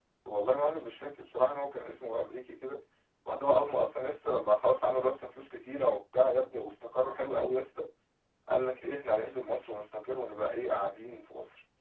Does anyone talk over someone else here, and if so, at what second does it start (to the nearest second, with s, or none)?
none